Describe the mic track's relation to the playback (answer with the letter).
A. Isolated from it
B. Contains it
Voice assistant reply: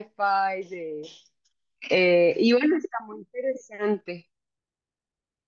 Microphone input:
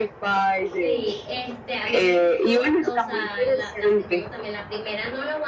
B